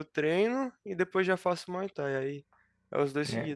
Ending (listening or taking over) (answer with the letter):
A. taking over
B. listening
A